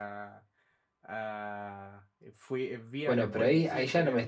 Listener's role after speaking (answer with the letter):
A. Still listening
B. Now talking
B